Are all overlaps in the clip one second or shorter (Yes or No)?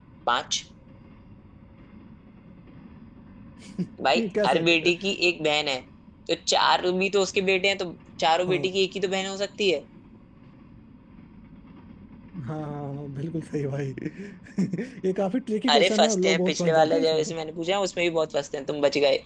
No